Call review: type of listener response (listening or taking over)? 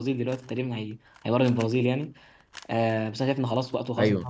listening